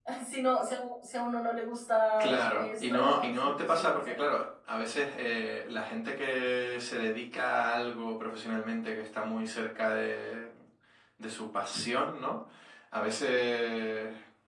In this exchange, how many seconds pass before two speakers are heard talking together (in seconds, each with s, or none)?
2.2 s